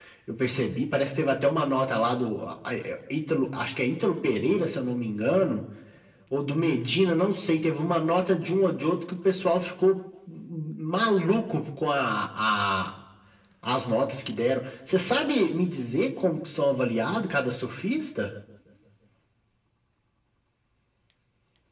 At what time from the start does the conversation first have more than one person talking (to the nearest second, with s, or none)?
none